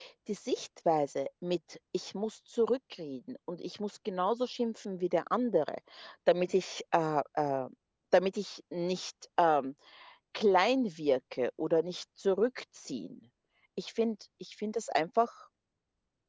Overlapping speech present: No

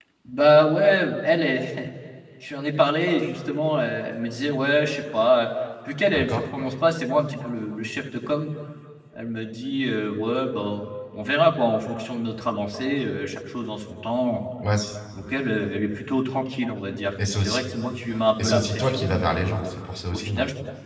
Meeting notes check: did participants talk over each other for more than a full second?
Yes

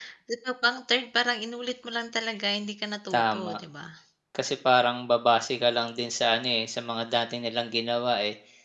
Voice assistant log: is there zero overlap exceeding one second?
Yes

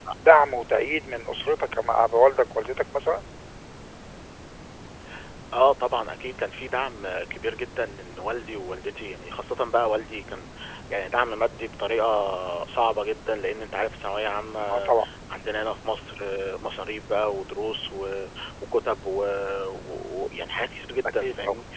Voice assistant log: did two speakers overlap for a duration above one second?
No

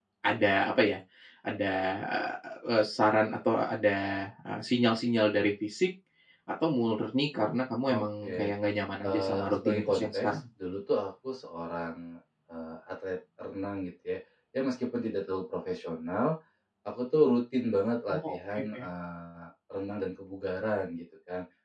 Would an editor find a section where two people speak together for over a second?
Yes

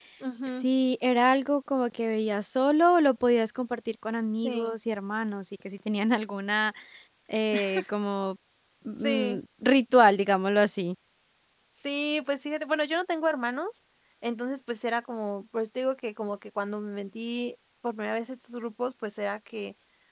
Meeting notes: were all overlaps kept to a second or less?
Yes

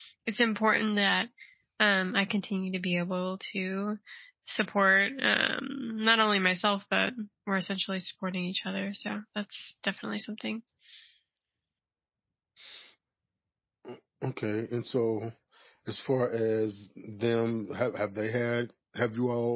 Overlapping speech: No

